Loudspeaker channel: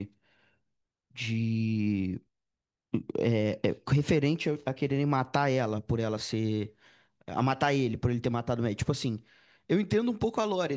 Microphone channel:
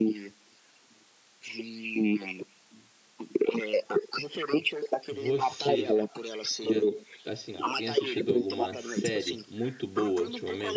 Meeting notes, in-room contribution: present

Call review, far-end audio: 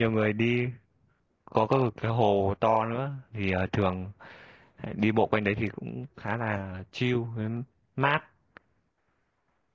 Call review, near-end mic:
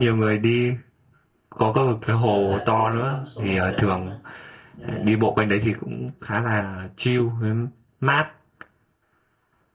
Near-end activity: present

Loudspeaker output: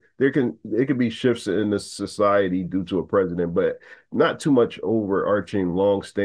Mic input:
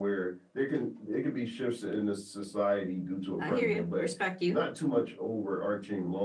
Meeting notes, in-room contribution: present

